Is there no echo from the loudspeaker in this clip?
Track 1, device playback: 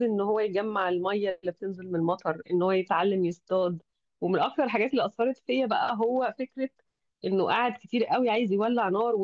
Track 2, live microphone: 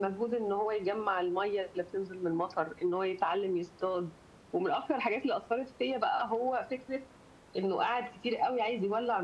No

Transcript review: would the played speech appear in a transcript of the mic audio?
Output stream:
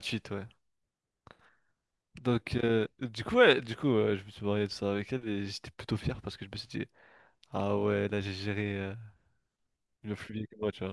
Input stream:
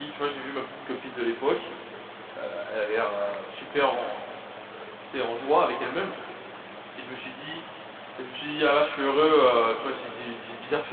No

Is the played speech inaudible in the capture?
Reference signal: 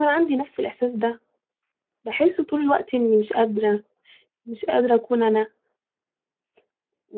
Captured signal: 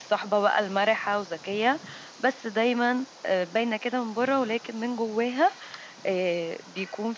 Yes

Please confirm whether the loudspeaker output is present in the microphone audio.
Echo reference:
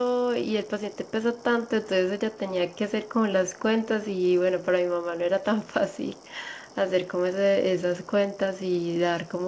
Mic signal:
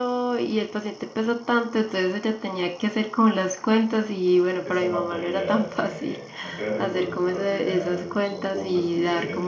Yes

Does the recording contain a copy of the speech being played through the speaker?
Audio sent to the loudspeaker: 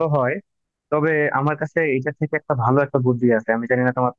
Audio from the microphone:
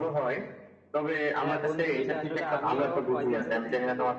Yes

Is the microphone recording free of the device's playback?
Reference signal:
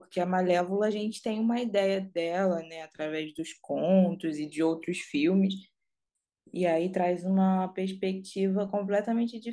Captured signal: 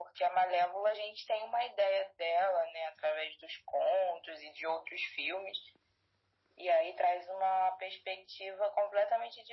No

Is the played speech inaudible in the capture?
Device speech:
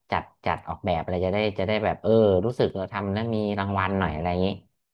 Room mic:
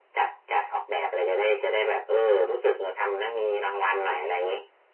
No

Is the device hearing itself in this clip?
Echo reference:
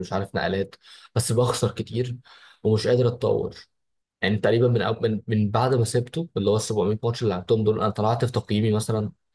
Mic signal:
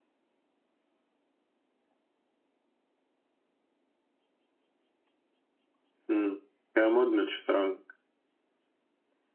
No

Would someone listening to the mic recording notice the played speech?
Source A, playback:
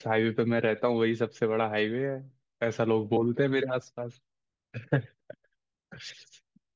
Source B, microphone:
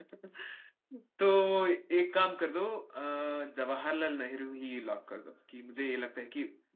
No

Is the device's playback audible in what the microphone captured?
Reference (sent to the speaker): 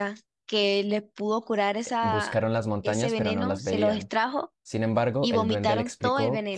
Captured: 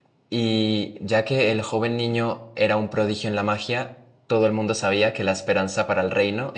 No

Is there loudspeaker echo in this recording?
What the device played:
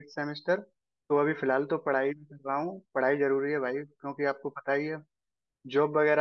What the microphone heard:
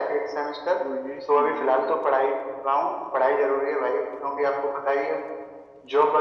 Yes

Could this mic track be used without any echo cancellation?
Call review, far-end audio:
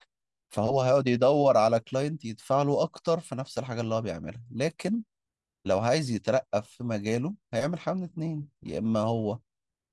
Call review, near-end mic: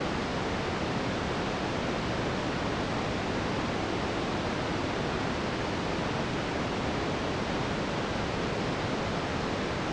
Yes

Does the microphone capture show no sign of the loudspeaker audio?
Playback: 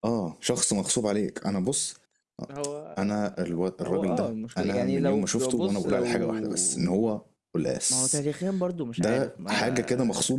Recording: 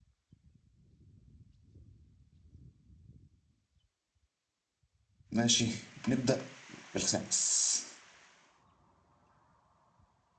Yes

